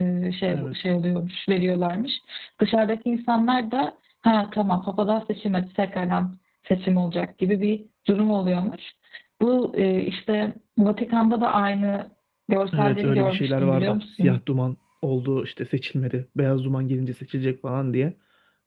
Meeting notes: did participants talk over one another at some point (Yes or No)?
Yes